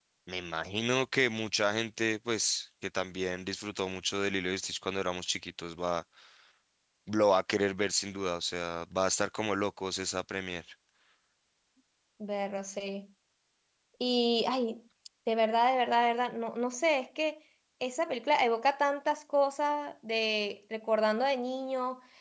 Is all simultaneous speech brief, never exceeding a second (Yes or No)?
Yes